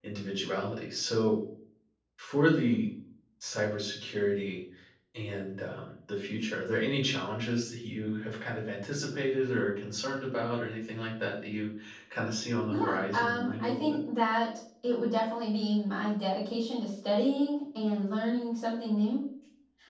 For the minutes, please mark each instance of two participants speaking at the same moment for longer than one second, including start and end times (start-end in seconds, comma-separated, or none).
12.7-14.0